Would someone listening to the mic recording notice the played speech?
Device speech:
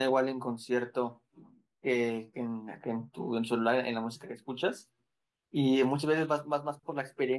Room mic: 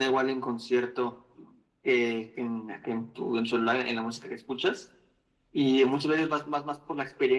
Yes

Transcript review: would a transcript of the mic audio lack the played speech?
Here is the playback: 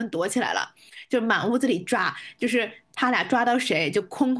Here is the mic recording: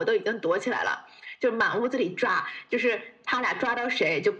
No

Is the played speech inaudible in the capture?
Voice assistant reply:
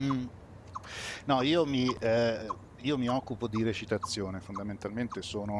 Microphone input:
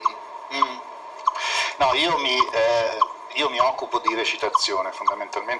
No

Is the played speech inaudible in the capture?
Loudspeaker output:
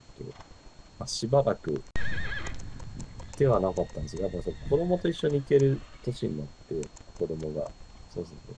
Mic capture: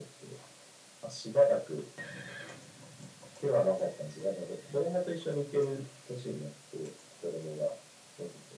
No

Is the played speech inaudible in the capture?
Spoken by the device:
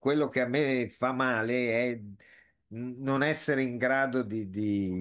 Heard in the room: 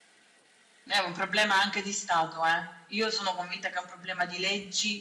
Yes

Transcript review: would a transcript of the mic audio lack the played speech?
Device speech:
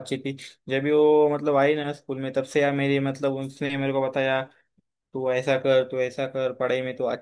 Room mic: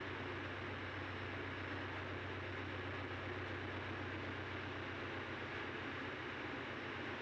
Yes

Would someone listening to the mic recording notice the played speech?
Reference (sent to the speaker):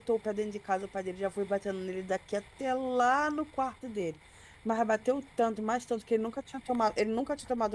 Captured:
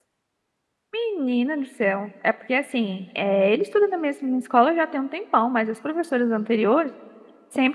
No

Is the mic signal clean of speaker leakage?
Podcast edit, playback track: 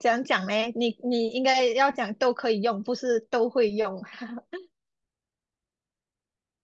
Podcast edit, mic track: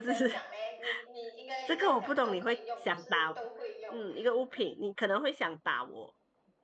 No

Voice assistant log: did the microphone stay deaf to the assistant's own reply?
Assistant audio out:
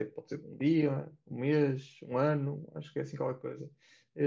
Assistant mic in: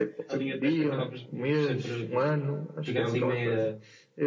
No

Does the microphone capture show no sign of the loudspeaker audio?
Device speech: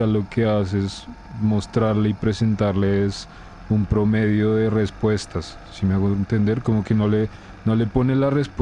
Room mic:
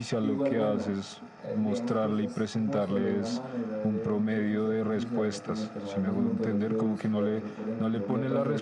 No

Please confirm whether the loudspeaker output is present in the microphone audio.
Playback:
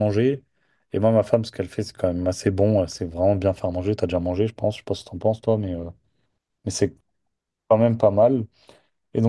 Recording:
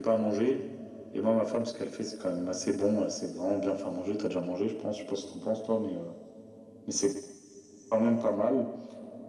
Yes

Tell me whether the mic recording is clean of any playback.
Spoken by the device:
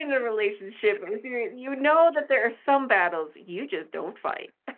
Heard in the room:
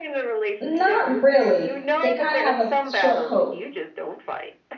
No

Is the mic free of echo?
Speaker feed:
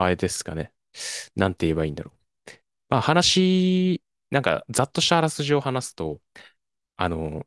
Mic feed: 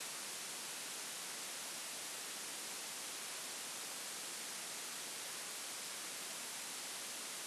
Yes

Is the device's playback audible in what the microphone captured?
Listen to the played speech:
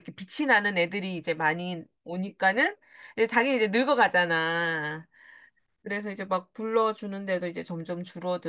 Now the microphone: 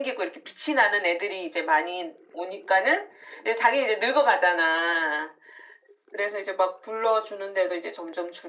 Yes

